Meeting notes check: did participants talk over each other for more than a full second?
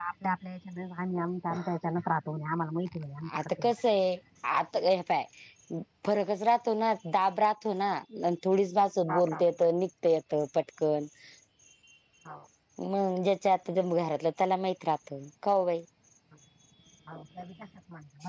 No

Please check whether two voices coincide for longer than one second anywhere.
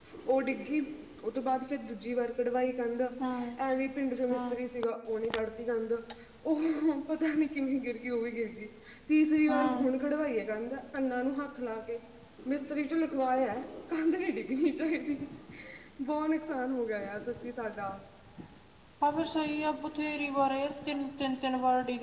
No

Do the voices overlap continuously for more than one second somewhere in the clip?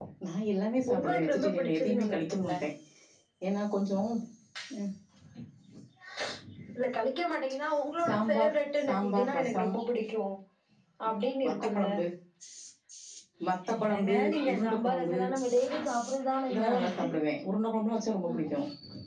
Yes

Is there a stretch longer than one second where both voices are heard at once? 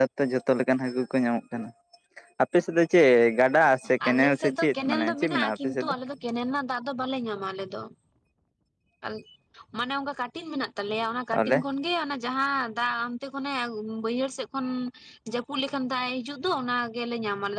Yes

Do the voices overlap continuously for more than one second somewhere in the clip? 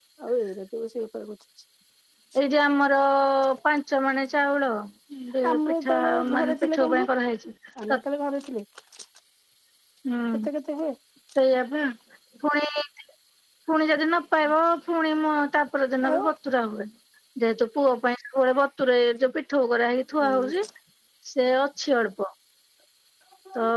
Yes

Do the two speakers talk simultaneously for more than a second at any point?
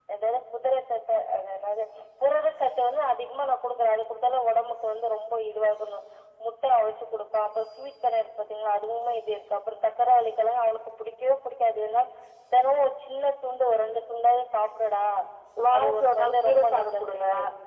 Yes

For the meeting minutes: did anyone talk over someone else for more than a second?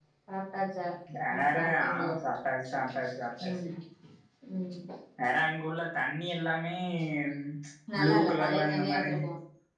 Yes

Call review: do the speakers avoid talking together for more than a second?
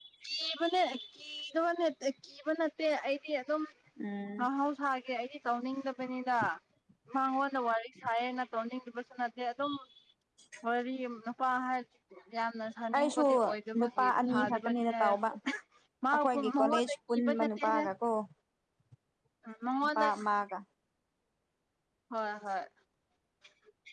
No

